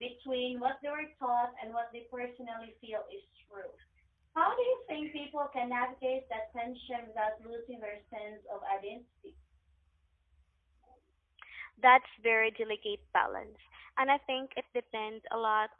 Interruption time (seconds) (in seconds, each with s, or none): none